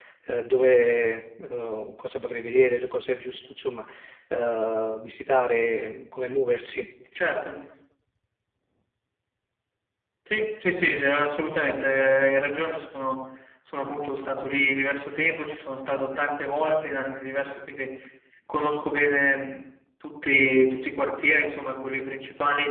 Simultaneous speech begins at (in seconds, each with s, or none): none